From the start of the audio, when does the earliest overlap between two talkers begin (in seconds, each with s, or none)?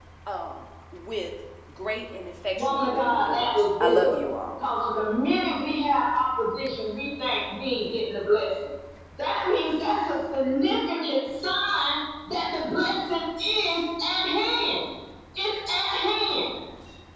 2.6 s